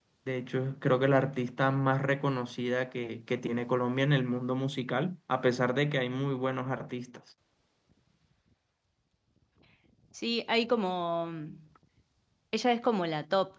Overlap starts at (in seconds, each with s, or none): none